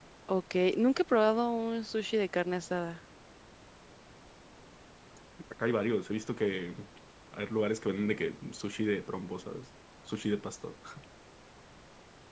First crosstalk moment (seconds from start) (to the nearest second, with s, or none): none